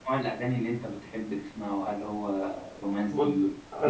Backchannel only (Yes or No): No